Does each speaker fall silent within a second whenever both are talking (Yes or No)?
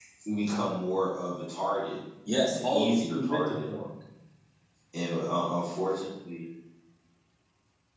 No